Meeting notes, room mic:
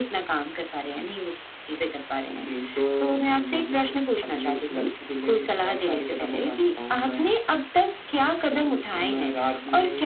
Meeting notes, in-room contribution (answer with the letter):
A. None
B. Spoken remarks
A